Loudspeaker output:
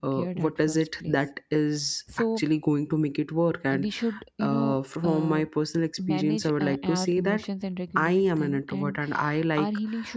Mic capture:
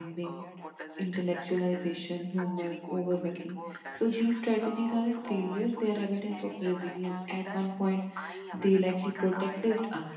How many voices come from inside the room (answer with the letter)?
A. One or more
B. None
A